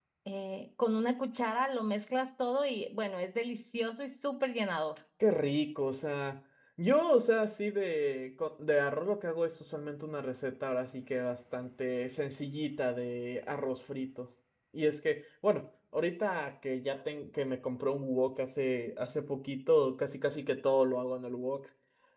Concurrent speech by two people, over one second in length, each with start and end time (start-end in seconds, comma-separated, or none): none